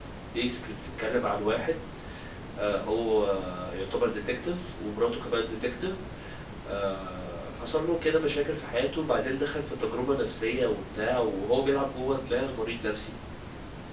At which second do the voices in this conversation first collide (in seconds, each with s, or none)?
none